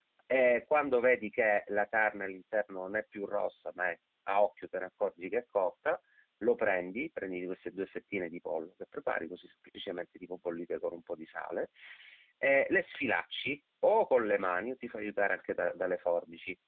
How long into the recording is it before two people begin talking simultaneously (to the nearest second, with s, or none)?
none